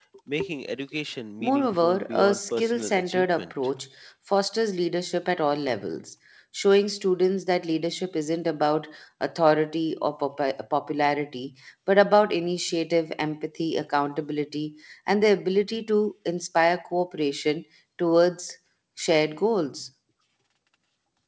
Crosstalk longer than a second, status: present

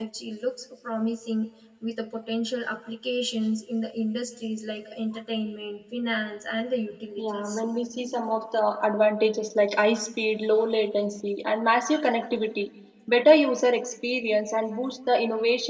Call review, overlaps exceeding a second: none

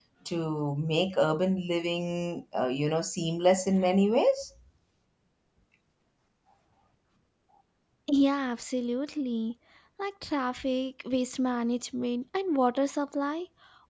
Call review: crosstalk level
none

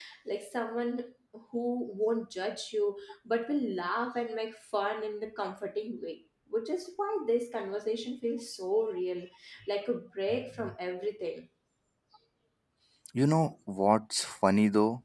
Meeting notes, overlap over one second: none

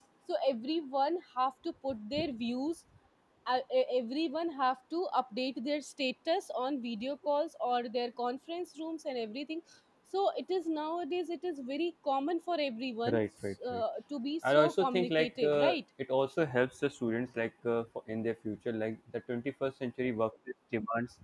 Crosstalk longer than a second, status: present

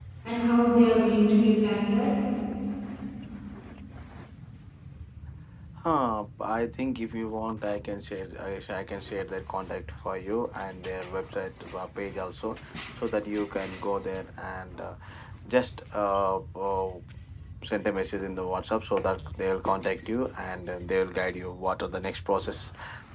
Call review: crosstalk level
none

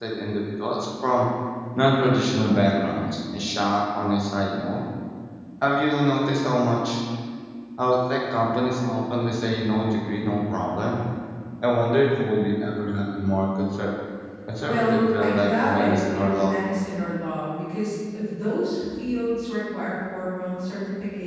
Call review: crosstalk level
present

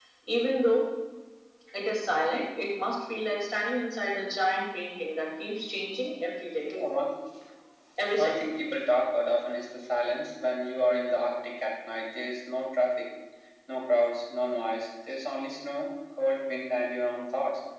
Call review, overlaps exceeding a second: none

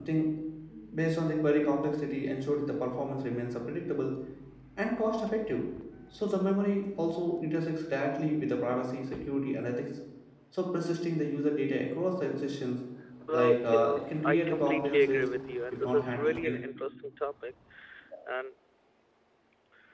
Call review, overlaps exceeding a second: present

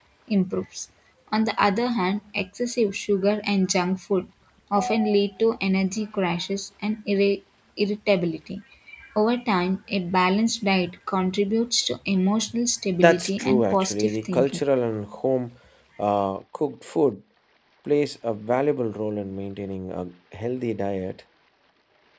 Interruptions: present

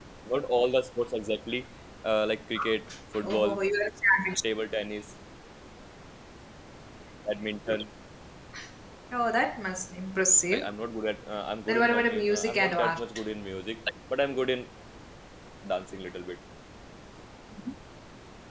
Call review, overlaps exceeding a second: present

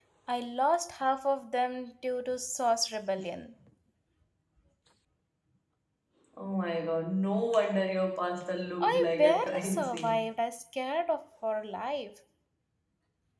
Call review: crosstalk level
present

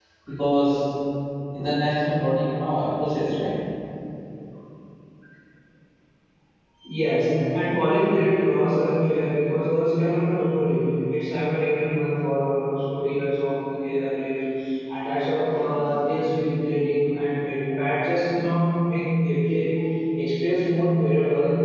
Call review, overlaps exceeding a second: none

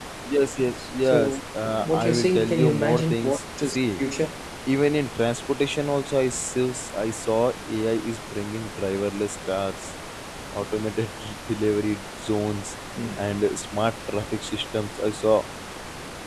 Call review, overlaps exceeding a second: present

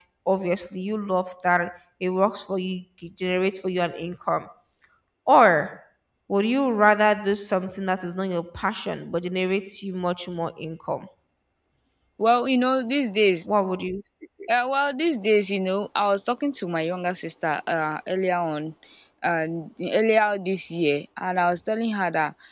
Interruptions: none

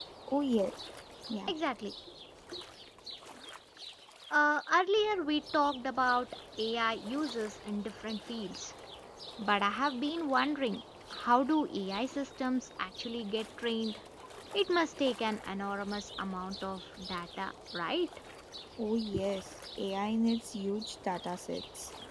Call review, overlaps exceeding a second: none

